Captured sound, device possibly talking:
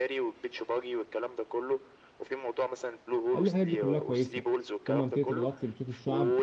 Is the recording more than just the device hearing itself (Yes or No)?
Yes